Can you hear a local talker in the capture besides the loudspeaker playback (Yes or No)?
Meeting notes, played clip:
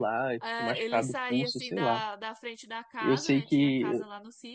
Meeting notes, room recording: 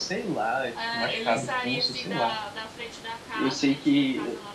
No